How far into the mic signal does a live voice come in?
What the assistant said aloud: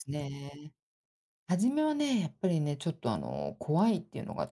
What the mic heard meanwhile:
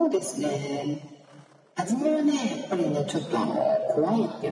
none

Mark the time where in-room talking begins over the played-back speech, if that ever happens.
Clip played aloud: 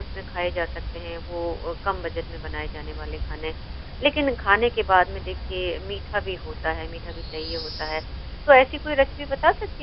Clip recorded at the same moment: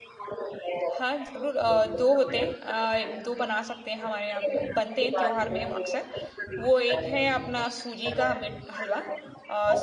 0.9 s

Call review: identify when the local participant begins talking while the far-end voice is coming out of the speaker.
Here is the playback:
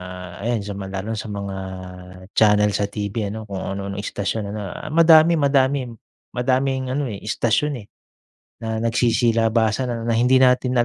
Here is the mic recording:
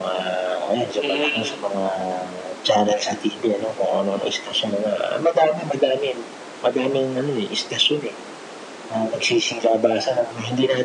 0.9 s

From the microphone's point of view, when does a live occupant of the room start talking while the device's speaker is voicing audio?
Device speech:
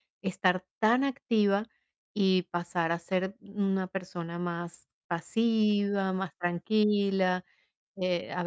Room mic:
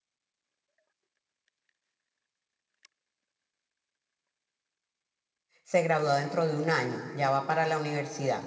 5.6 s

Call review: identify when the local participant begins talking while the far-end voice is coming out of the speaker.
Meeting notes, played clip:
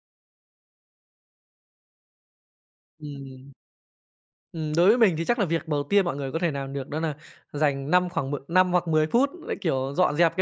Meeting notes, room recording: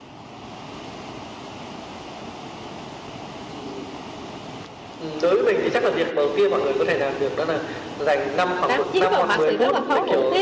8.7 s

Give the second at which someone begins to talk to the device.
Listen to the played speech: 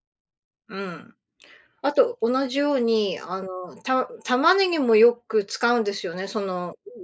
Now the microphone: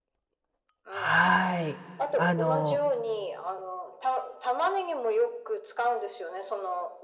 0.9 s

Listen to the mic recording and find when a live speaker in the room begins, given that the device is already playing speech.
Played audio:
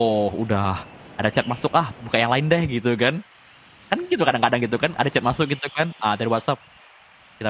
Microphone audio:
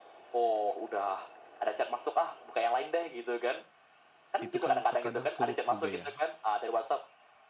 4.4 s

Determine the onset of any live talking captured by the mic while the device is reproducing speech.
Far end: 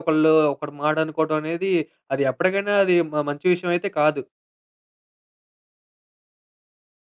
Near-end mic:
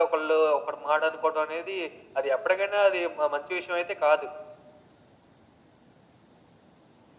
none

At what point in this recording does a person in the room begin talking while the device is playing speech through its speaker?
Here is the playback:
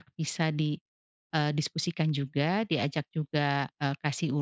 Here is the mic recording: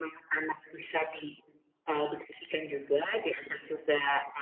none

